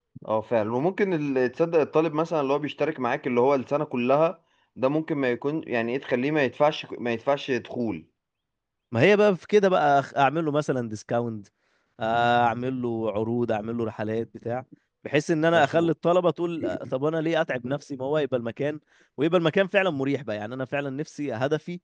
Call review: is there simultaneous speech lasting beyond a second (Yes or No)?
No